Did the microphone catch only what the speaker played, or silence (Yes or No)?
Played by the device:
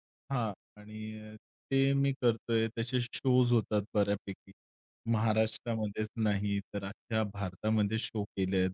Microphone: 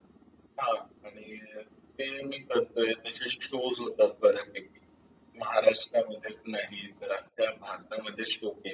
Yes